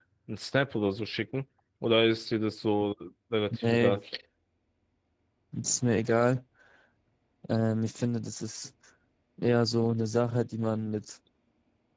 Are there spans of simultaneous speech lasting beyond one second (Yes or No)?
No